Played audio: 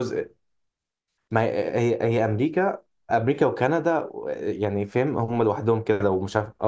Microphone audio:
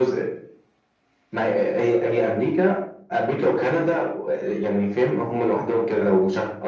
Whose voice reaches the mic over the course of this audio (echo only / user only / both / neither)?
echo only